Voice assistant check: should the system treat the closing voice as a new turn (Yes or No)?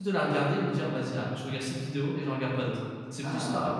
No